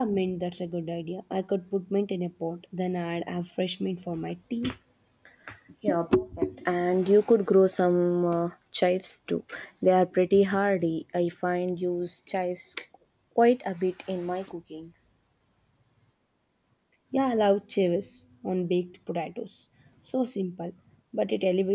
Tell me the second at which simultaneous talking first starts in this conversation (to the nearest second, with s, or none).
none